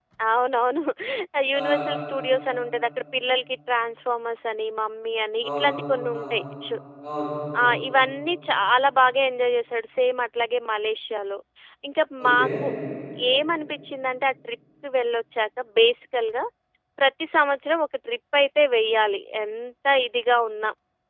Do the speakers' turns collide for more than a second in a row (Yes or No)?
No